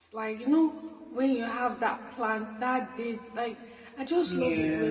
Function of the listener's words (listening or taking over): listening